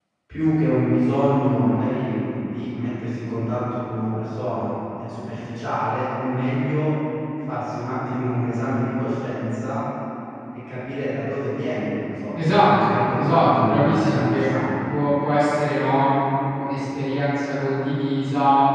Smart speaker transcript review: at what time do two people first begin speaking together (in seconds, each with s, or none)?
12.3 s